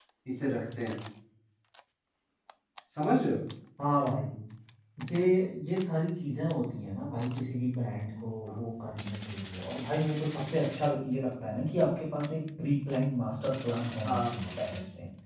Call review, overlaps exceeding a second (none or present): none